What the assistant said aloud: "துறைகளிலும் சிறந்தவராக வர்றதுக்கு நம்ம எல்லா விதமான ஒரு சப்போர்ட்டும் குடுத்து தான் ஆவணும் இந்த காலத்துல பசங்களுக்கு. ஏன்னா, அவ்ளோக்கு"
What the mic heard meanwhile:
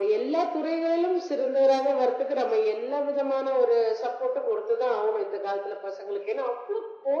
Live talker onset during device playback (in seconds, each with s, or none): none